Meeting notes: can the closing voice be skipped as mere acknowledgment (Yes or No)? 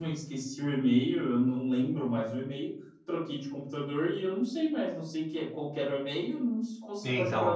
Yes